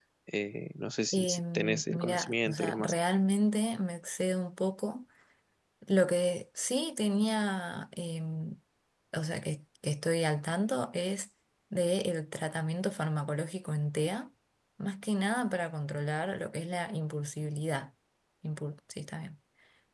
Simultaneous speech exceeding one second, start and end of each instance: 1.1-2.9

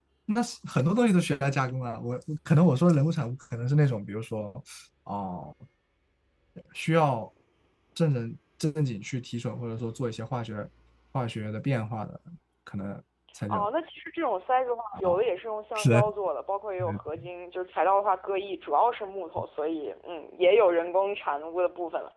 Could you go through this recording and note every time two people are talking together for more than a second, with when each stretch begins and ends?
none

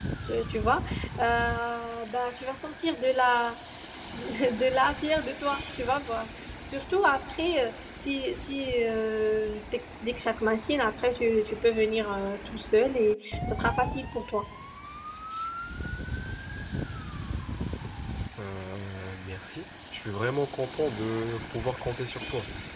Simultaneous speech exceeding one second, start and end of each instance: none

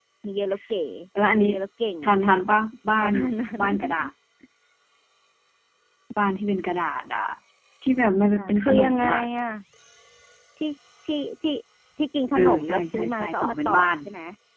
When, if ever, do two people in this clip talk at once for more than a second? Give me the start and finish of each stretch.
8.0-9.2, 12.4-13.9

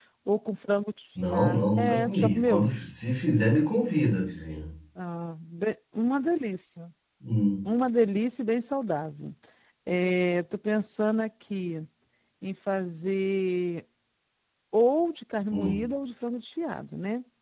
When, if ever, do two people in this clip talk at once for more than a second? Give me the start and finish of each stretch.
1.3-2.7

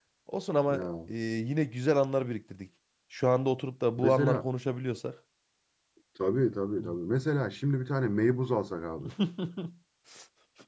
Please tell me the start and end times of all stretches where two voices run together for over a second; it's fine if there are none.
none

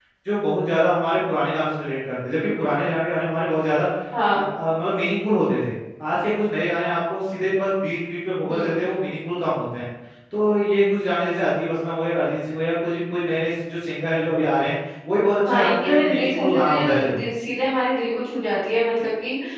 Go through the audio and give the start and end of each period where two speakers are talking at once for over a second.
15.4-17.2

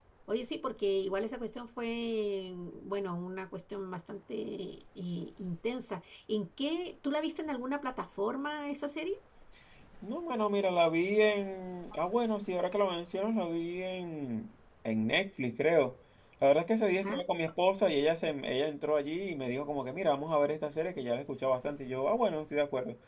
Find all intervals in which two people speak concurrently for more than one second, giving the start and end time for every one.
none

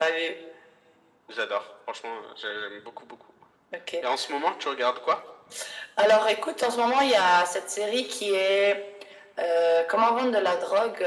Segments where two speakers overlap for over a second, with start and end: none

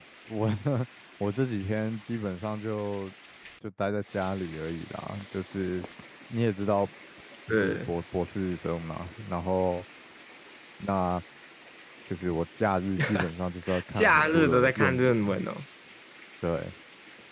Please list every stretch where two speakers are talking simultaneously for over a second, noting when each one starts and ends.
13.9-15.4

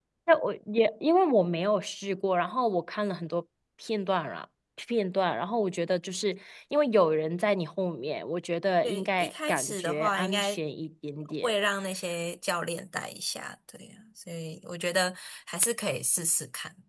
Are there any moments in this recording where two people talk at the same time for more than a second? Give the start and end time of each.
8.8-10.6

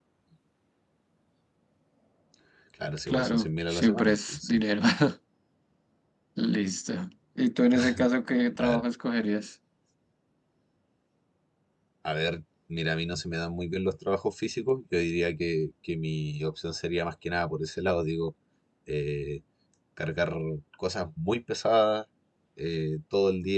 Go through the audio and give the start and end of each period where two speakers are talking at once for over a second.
3.1-4.6

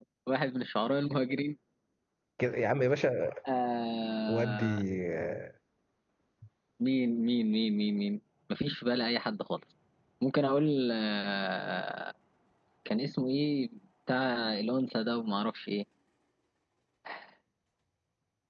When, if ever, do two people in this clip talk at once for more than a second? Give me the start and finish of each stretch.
none

